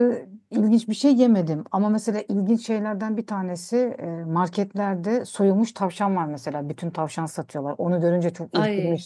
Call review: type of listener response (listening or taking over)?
listening